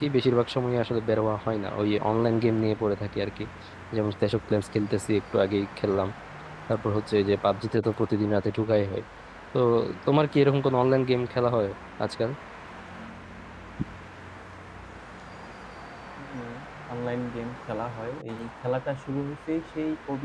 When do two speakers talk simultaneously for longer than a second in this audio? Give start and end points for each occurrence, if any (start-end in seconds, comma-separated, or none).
none